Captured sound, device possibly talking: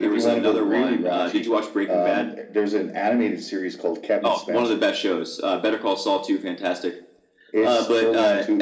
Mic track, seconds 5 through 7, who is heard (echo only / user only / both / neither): echo only